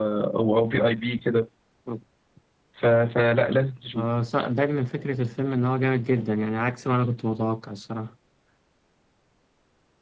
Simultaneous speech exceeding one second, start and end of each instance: none

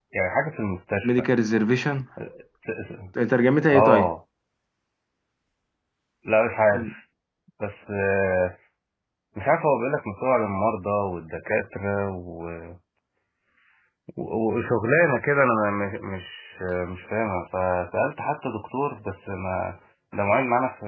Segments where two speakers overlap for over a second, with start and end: none

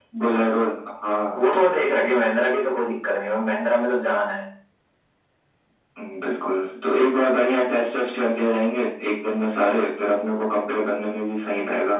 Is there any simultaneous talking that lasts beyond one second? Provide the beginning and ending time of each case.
none

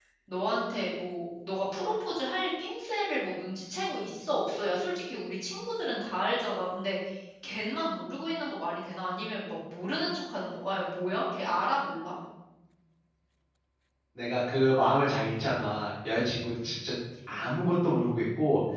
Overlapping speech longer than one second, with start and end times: none

